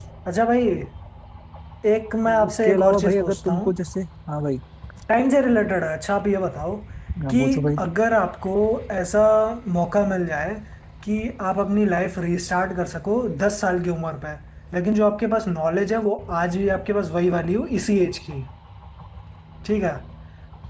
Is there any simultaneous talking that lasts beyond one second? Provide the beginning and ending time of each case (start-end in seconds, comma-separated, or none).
2.3-3.7